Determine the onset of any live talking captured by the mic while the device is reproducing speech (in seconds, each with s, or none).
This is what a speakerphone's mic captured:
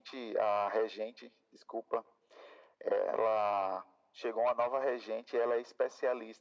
none